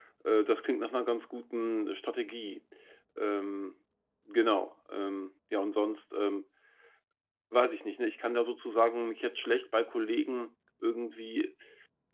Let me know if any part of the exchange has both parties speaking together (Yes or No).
No